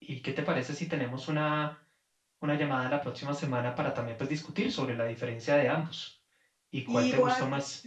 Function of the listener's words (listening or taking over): taking over